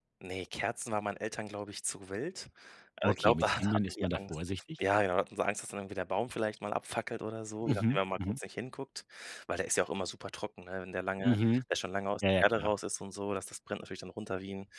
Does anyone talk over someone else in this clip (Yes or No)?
Yes